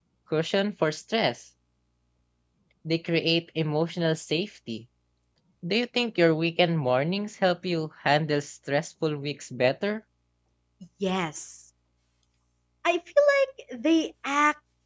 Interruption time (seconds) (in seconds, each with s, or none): none